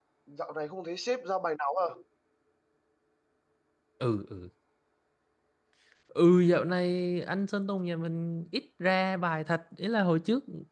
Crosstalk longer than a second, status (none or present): none